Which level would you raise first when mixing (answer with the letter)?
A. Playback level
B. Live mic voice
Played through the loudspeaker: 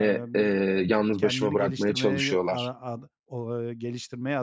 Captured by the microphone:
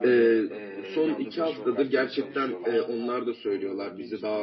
A